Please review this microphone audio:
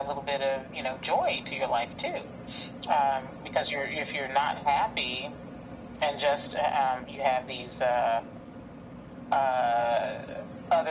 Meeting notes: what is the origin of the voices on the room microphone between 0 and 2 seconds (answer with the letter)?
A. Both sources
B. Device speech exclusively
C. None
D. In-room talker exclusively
B